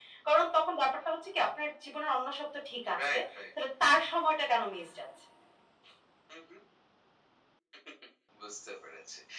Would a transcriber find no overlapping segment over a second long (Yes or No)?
Yes